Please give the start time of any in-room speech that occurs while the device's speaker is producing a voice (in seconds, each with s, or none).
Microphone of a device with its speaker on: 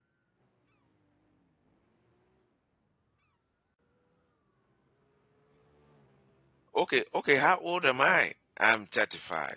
6.8 s